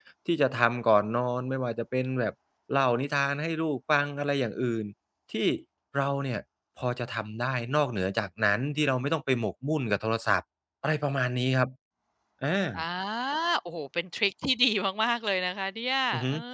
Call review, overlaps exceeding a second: none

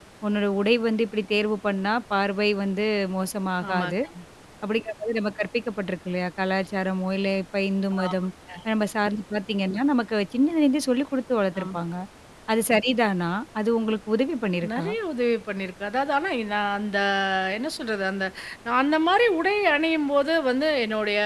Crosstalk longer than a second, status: none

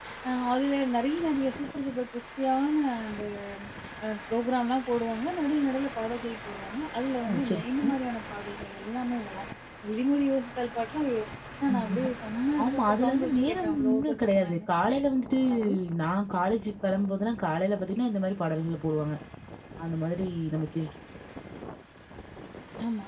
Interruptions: present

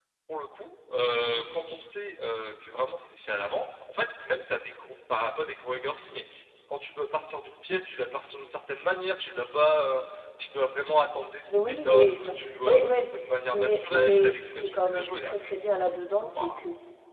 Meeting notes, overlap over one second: present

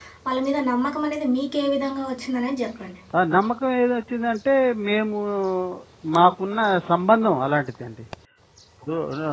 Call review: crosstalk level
none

